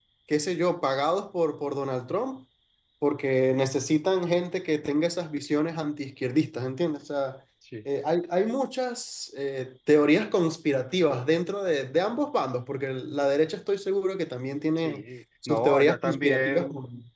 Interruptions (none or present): present